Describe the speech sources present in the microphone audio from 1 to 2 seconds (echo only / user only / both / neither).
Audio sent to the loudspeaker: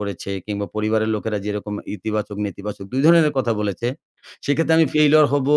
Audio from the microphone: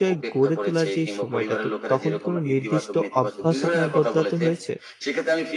both